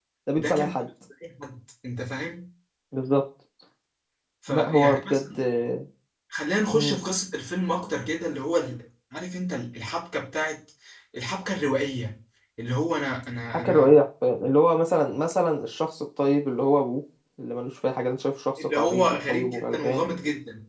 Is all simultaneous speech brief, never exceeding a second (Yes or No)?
No